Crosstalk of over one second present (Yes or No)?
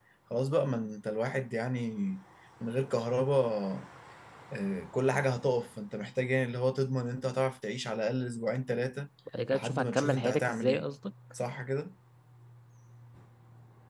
Yes